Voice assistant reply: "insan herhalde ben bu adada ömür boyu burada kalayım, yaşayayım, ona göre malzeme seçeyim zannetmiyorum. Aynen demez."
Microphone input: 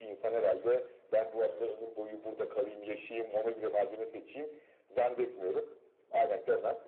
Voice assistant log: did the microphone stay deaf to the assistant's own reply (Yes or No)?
No